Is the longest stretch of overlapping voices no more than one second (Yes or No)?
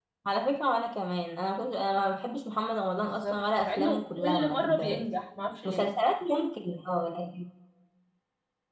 No